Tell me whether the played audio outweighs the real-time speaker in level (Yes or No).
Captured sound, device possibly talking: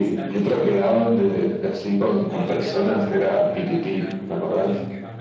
Yes